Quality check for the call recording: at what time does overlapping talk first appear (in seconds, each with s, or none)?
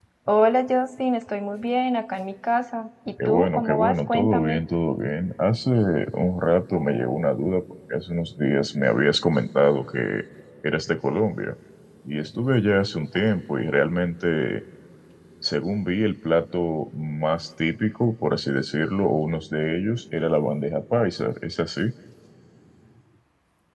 3.2 s